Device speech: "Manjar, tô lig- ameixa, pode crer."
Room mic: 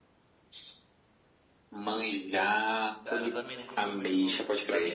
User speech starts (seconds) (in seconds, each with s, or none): 3.0 s